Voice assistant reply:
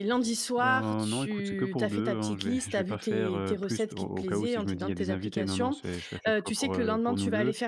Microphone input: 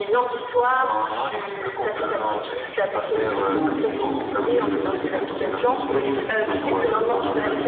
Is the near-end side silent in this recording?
No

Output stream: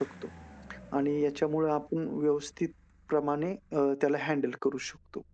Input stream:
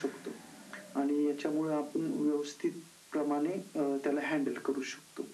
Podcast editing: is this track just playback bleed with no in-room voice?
Yes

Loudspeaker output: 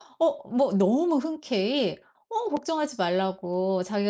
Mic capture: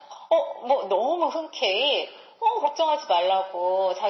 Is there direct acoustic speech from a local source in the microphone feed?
No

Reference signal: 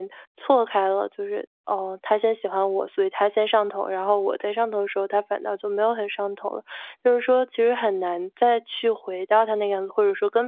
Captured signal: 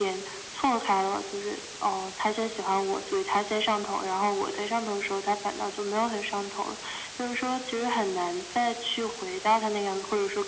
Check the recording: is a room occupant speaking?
No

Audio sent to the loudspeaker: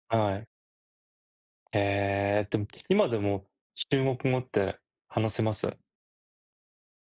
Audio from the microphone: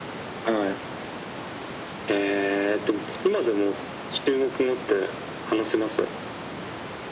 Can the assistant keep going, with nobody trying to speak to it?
Yes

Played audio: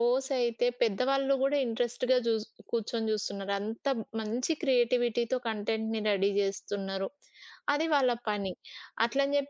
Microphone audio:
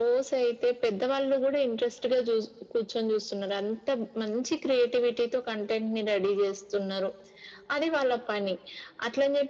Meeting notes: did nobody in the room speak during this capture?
Yes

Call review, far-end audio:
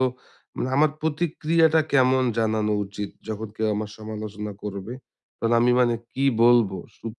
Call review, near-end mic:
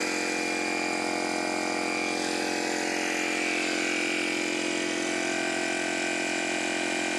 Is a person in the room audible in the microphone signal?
No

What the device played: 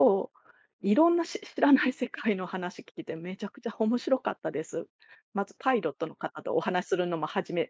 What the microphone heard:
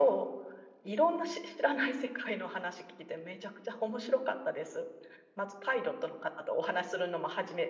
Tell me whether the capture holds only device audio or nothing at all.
Yes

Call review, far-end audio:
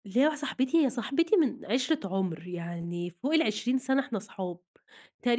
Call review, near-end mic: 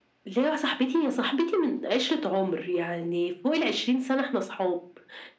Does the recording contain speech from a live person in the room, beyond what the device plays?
No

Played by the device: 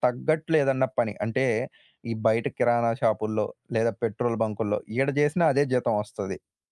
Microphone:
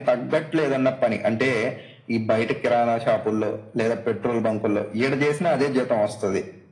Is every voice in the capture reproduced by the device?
Yes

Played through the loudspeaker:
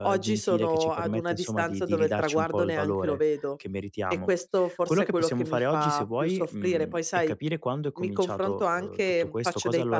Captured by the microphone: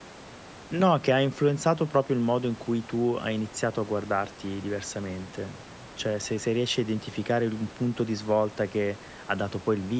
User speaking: Yes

